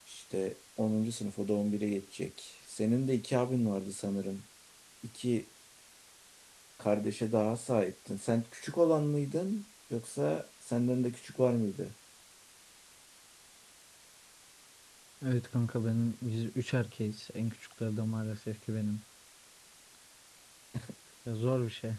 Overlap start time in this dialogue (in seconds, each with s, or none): none